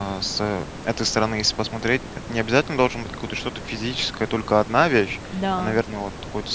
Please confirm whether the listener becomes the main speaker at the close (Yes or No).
No